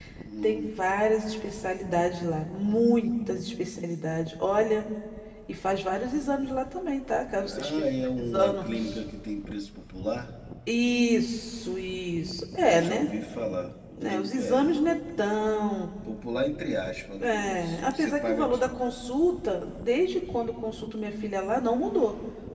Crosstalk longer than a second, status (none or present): present